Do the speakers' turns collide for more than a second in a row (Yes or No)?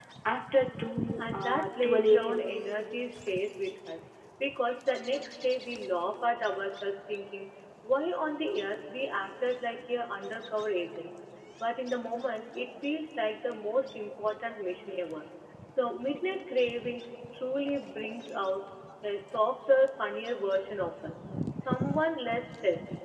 Yes